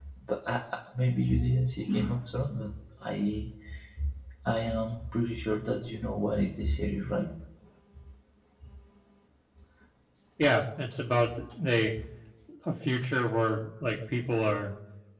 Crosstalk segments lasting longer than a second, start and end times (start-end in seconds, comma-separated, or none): none